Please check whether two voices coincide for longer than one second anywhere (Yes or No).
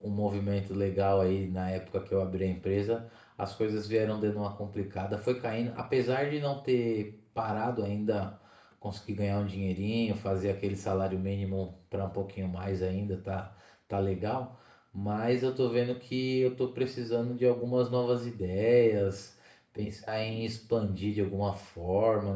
No